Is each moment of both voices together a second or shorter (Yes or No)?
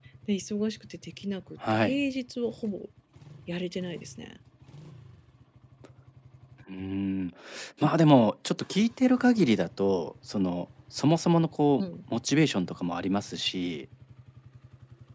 Yes